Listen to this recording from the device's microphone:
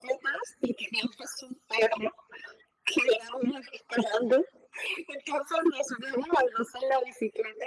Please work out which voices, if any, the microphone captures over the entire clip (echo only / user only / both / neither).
echo only